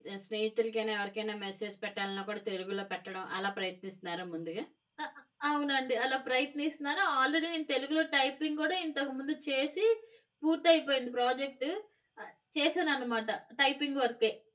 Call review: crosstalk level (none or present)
none